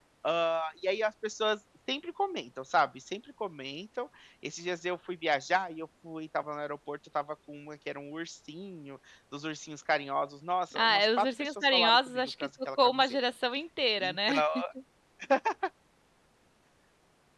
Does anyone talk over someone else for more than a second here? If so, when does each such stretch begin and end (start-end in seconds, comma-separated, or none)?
10.8-13.2